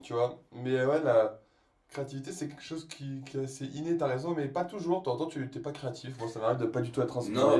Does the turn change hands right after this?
Yes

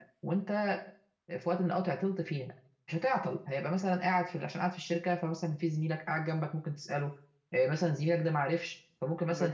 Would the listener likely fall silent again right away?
Yes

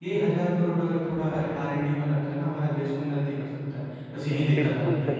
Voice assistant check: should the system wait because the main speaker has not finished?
No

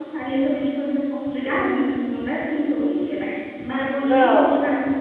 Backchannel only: Yes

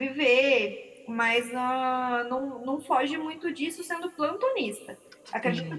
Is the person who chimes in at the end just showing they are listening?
Yes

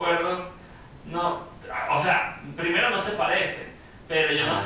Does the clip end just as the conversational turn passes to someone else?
No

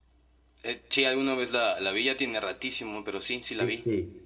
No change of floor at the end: No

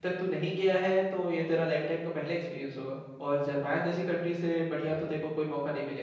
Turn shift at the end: No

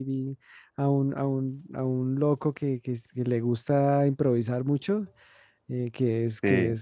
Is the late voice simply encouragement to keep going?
Yes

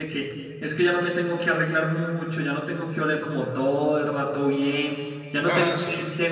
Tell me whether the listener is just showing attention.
Yes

